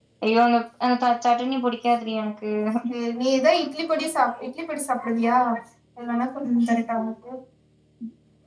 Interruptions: none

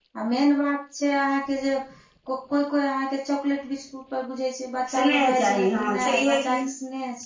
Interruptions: present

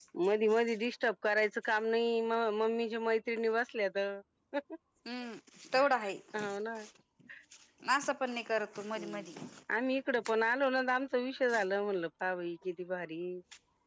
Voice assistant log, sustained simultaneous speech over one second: none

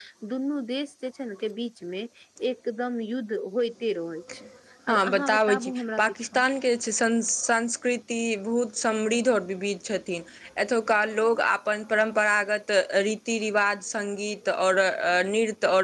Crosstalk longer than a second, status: present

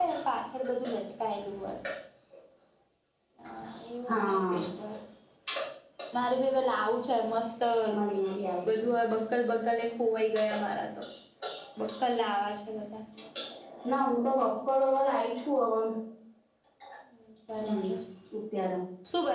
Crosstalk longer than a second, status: none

